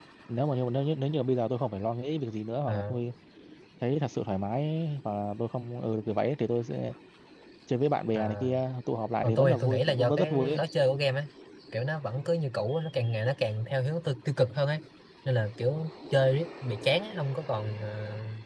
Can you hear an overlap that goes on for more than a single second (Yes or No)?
Yes